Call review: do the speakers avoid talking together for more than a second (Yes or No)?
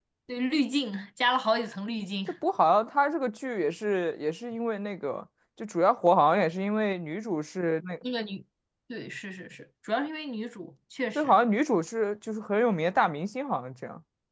Yes